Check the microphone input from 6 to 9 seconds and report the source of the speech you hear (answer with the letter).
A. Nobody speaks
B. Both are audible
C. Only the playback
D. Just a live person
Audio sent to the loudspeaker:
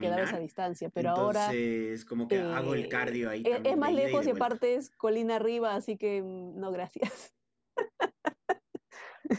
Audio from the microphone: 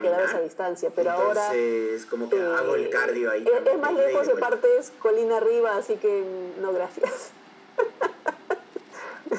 C